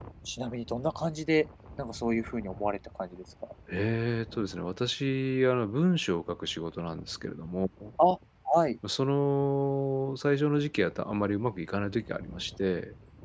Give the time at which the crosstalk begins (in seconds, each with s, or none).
none